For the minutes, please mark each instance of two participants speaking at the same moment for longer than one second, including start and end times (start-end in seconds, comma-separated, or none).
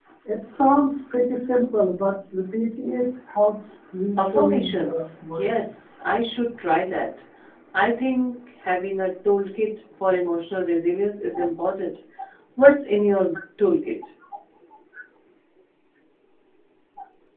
4.2-5.6